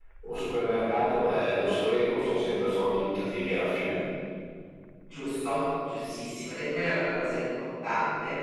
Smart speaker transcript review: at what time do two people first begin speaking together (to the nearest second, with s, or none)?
none